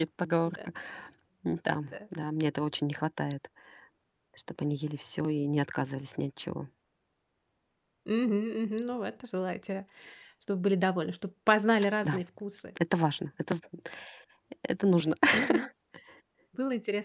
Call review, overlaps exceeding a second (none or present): none